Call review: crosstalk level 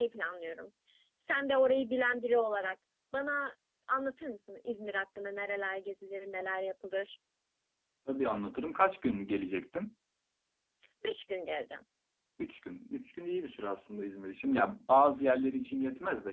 none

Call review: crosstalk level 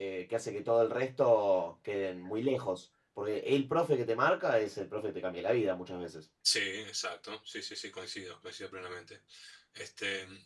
none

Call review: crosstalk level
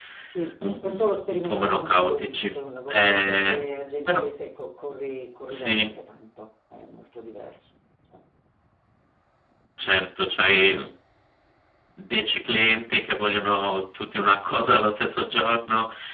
present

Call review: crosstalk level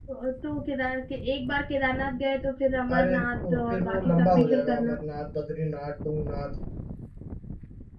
present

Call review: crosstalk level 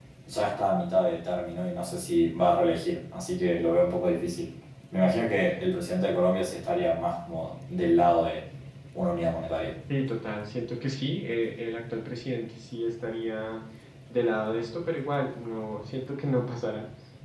none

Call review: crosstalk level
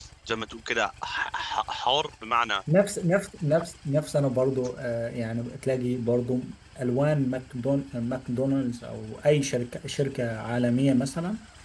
none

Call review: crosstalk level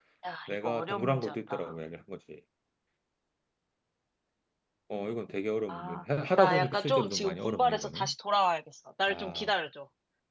present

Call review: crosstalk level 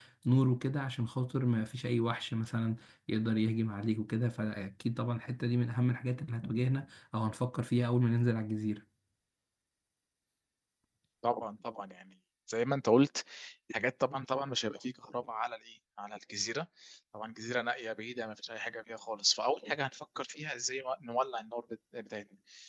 none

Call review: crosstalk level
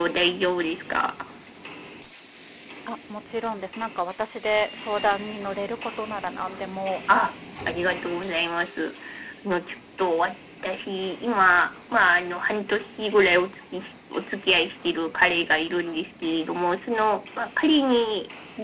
none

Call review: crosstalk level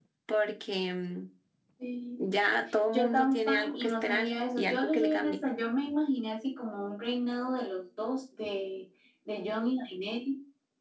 present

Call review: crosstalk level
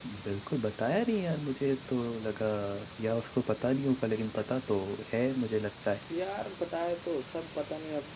none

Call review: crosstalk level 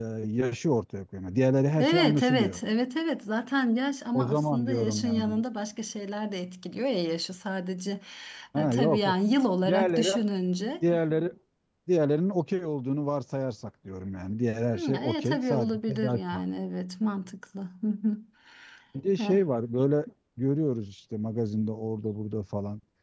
present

